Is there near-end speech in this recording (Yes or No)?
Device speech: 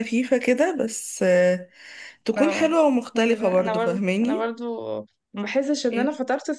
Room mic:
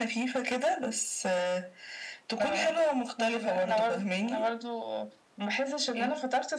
No